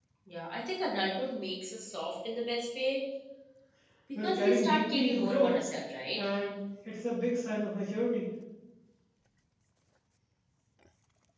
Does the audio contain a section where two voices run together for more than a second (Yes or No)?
Yes